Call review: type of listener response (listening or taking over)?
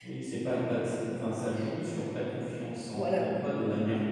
listening